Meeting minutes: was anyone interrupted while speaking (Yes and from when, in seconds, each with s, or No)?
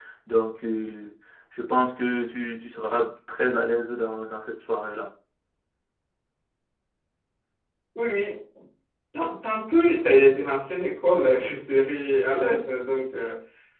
No